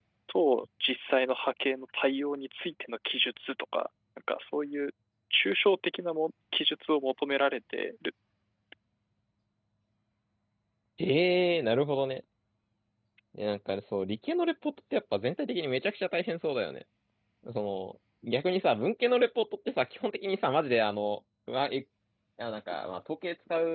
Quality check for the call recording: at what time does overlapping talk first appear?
none

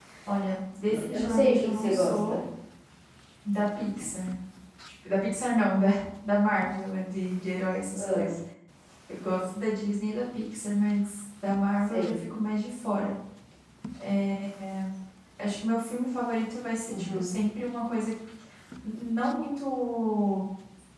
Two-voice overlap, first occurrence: 1.1 s

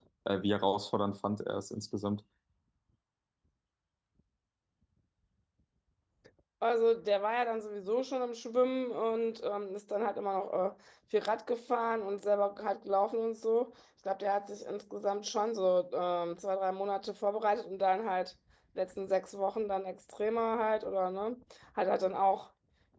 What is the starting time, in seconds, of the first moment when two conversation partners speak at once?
none

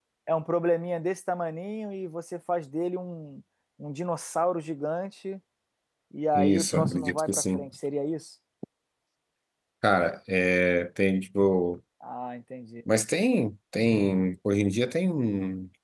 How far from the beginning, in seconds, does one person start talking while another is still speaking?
6.3 s

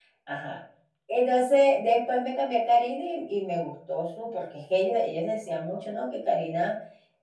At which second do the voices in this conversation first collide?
none

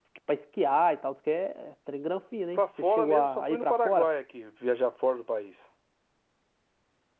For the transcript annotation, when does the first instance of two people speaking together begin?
2.5 s

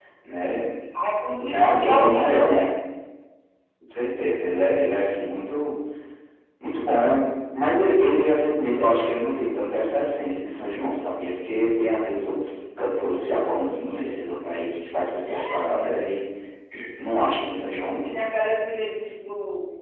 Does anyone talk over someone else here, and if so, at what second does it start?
1.4 s

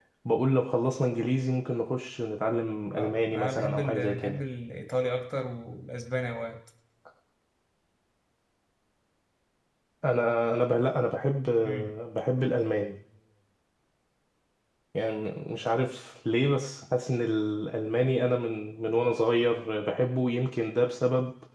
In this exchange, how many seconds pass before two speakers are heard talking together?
3.0 s

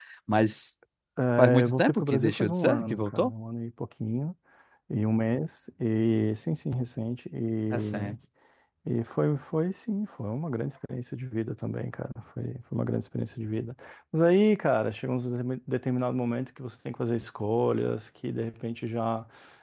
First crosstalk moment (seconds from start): 1.4 s

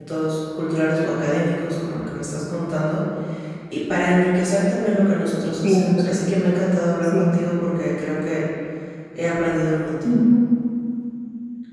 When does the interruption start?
5.6 s

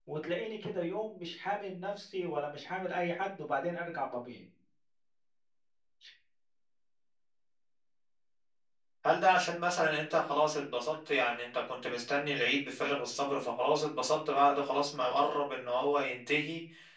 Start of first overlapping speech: none

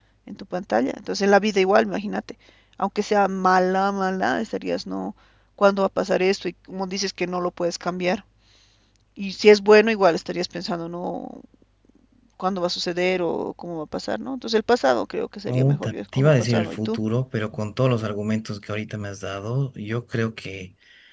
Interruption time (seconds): 15.5 s

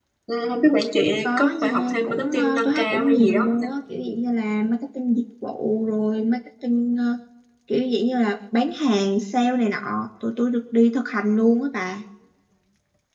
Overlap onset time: 1.2 s

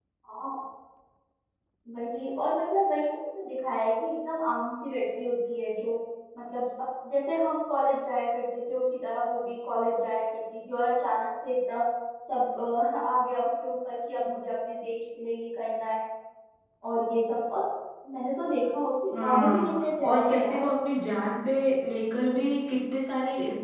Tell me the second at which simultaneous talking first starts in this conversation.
19.1 s

